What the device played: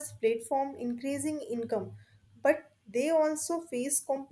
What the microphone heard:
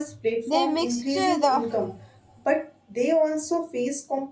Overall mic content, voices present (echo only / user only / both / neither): both